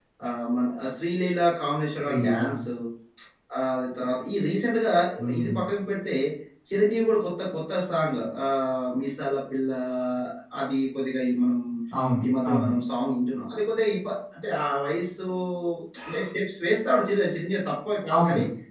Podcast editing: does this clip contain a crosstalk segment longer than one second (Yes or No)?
No